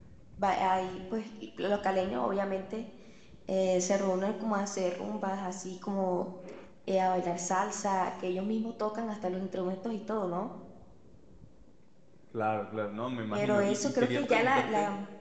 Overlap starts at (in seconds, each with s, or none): 13.3 s